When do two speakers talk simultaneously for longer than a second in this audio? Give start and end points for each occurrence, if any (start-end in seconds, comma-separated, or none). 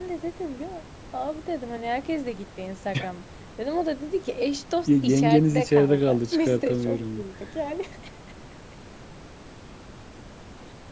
4.9-7.2